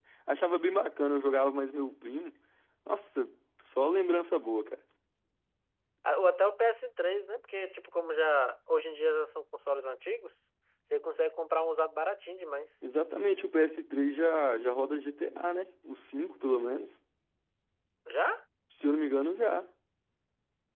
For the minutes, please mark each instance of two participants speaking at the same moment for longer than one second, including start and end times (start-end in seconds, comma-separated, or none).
none